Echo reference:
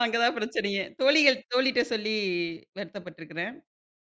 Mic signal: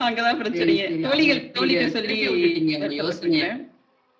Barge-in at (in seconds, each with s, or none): 0.5 s